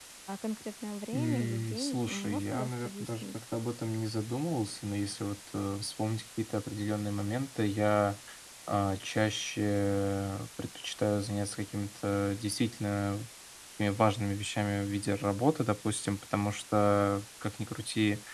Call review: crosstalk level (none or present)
present